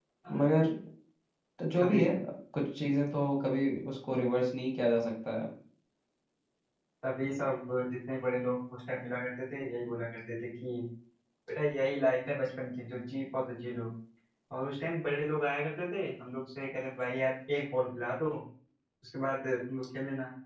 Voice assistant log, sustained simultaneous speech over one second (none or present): none